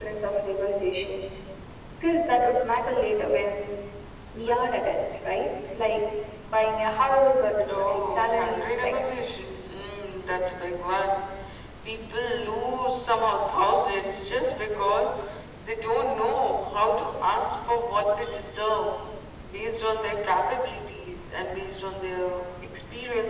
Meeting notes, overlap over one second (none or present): present